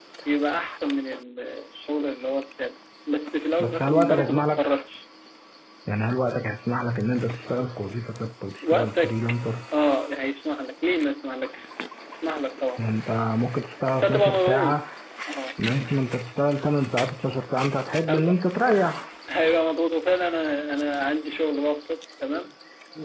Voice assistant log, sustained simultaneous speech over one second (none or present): present